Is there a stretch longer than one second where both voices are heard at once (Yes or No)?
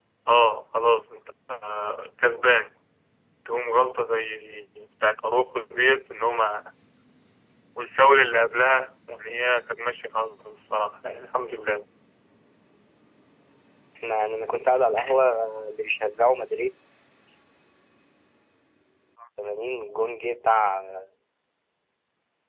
No